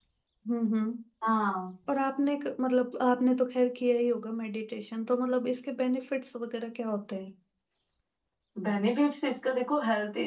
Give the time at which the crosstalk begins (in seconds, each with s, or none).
none